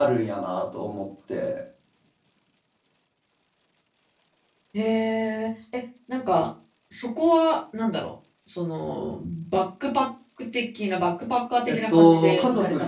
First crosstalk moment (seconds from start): 11.7 s

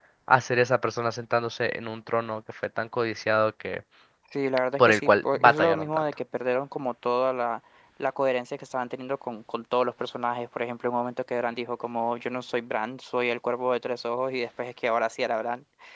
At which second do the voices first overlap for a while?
4.8 s

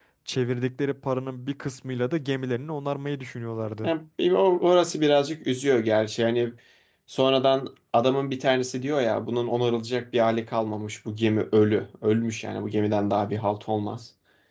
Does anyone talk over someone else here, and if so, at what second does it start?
none

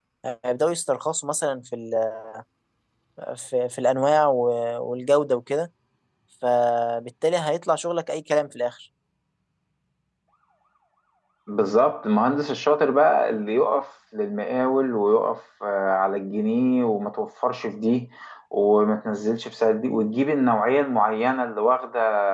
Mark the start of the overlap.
none

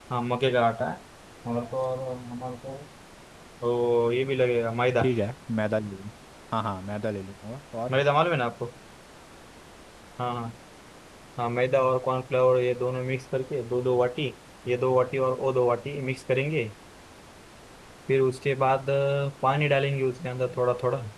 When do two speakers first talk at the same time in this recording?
none

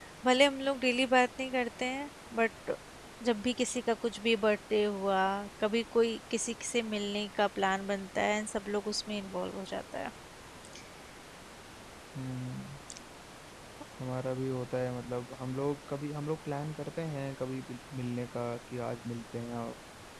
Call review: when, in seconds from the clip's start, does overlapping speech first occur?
none

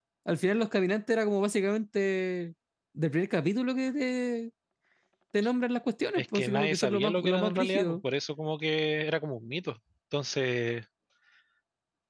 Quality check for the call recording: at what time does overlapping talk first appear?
6.2 s

